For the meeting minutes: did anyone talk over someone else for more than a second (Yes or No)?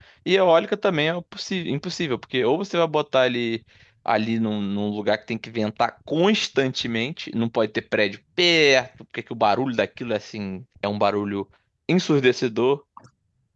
No